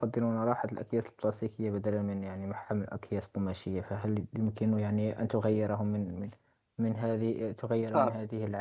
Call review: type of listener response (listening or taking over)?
listening